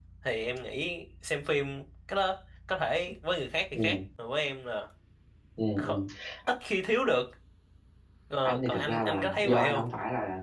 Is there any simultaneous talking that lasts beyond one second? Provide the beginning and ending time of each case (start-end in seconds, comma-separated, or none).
8.4-9.8